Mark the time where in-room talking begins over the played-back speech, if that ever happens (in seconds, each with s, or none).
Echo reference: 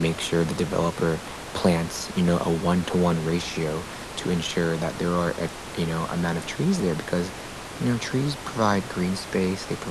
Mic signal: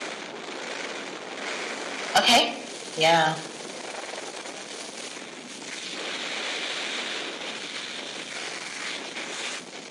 2.2 s